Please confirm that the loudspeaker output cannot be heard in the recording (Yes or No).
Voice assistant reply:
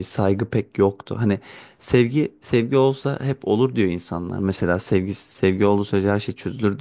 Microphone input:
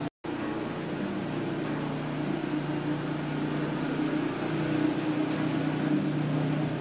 Yes